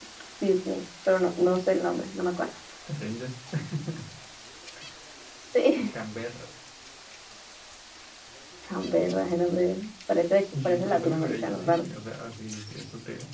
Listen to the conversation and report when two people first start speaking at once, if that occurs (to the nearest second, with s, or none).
11 s